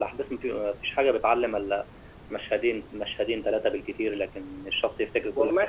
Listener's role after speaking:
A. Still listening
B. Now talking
B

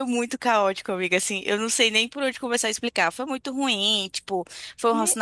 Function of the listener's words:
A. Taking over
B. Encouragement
B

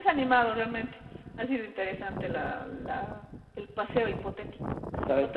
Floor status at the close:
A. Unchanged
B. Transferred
A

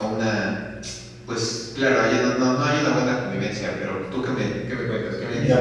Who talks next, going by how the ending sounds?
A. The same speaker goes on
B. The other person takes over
B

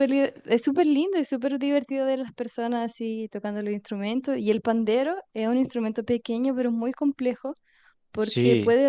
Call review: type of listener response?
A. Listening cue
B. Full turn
A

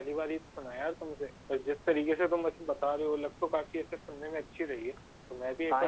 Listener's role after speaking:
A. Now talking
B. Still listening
A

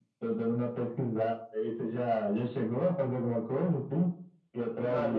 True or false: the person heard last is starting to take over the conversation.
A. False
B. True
B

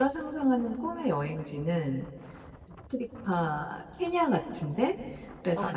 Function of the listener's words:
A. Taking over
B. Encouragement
B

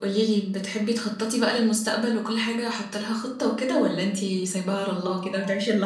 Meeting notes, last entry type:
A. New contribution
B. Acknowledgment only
A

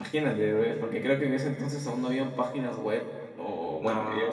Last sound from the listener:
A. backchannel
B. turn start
A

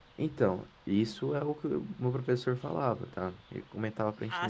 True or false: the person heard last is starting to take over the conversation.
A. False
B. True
B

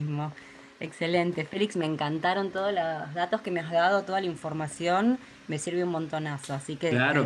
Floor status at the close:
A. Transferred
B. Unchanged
A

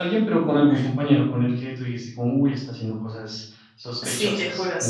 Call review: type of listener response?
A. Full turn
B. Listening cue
A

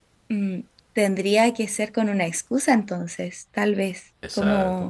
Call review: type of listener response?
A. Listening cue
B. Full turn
B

